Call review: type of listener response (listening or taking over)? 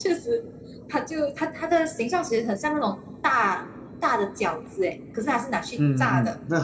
taking over